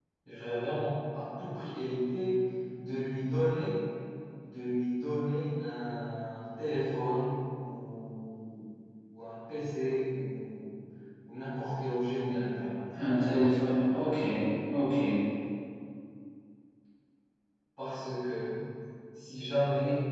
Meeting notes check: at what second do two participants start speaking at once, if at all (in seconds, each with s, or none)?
none